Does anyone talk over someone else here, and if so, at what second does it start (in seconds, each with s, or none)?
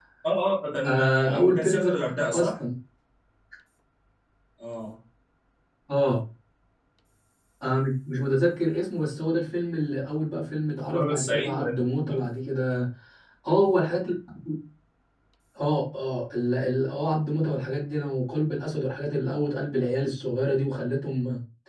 0.8 s